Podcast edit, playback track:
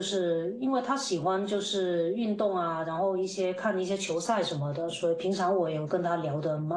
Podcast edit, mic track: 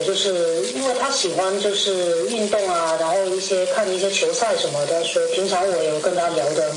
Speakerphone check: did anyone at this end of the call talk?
No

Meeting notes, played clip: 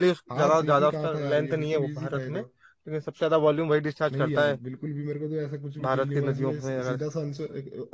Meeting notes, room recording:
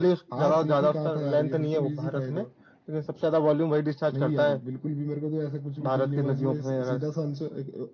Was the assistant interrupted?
No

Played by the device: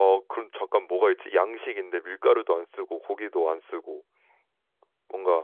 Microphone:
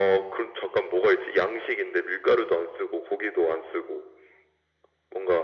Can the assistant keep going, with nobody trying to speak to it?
Yes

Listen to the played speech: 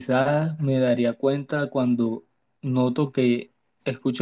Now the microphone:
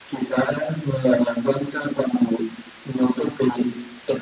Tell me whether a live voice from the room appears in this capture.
No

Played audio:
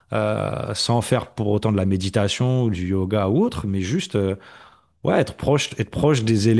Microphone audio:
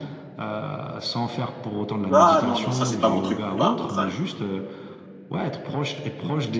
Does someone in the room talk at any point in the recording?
Yes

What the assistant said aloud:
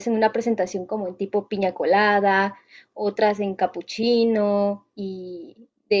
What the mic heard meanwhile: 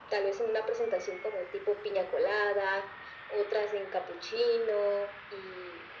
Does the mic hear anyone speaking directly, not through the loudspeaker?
No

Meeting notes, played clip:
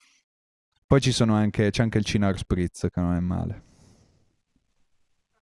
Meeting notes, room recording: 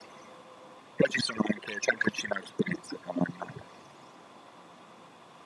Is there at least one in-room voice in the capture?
No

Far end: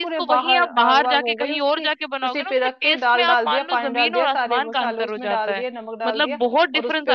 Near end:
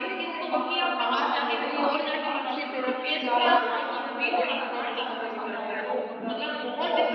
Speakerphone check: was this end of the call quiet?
Yes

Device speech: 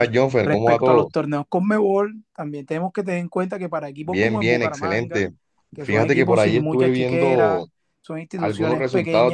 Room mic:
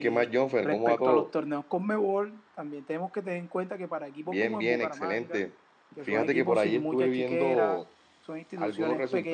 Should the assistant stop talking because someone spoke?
No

